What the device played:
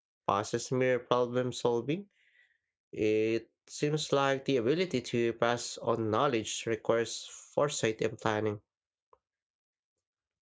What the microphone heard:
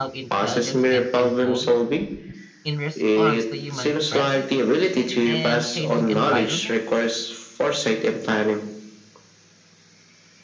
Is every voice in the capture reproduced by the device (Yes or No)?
No